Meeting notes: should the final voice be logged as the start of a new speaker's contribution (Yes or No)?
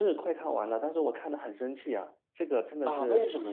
Yes